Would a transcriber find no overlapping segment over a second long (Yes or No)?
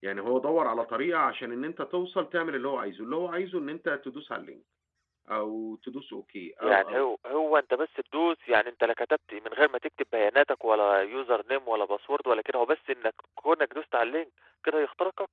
Yes